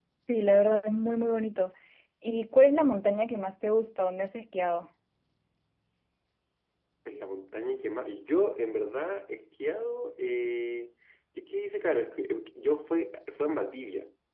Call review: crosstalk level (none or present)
none